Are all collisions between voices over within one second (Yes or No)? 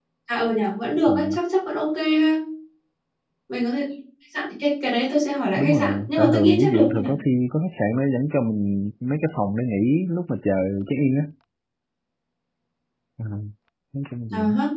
No